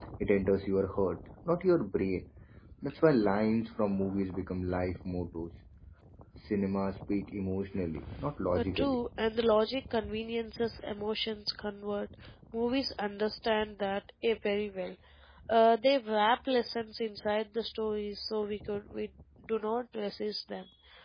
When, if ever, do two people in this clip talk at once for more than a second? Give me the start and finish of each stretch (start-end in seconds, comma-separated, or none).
none